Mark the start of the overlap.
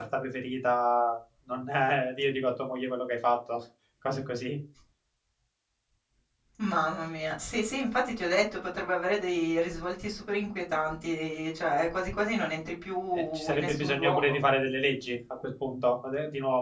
13.1 s

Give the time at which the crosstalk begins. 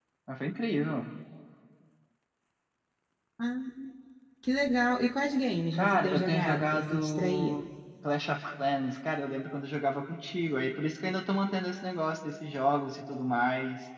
5.7 s

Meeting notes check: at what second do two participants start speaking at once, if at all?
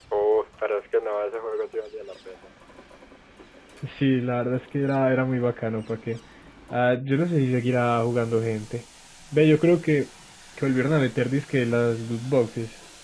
none

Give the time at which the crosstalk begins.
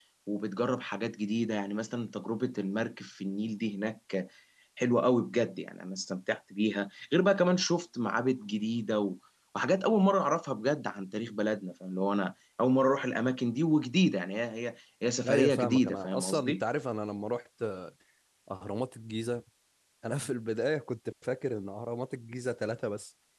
15.2 s

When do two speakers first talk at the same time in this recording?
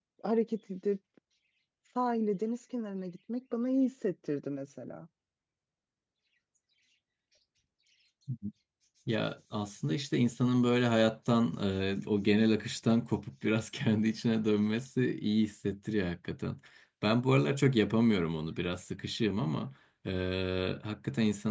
none

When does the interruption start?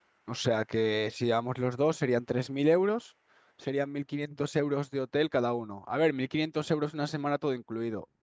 none

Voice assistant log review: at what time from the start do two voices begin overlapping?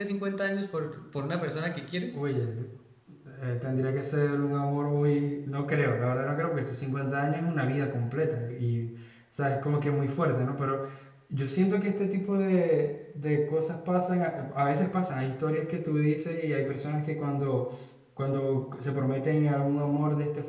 none

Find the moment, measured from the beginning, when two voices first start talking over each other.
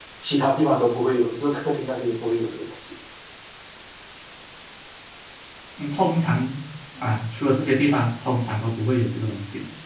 none

